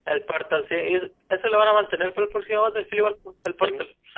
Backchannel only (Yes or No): No